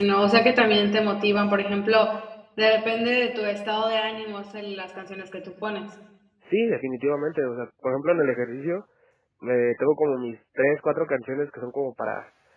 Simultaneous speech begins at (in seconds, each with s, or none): none